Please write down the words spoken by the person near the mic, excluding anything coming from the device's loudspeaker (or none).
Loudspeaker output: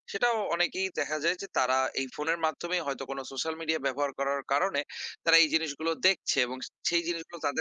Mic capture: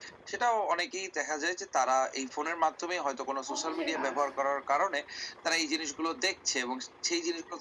অফিসের কাজ।